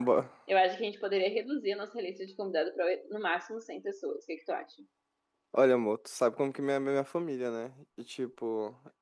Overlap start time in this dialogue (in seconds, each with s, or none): none